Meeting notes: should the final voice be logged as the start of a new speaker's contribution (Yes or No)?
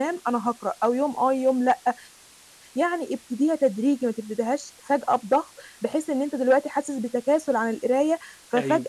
No